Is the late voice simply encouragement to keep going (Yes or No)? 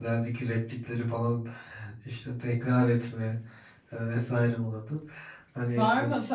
No